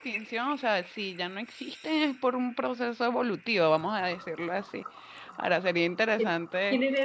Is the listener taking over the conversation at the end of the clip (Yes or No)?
Yes